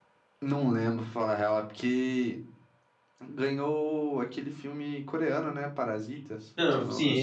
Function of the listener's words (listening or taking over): taking over